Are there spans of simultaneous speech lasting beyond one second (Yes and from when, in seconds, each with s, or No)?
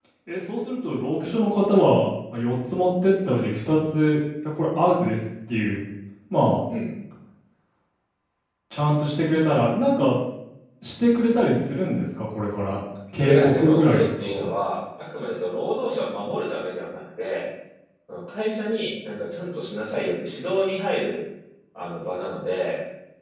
Yes, from 13.2 s